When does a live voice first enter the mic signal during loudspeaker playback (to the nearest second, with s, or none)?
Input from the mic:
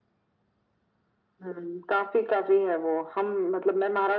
none